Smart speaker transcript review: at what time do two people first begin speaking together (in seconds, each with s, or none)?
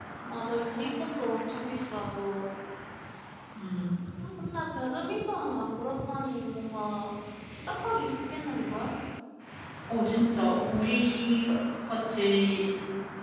none